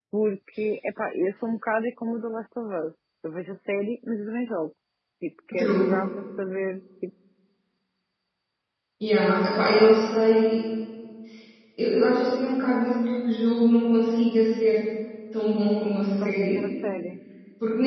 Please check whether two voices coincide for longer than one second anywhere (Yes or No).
No